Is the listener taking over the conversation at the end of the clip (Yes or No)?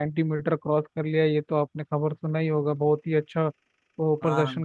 No